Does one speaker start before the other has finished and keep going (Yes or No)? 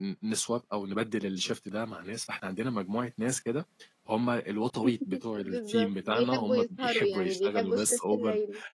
Yes